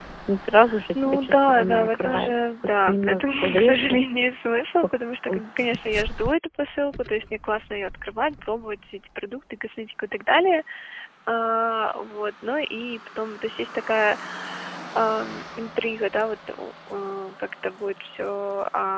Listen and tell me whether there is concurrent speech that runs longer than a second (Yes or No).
Yes